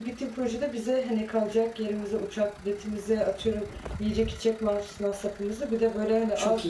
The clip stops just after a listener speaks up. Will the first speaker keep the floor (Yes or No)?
Yes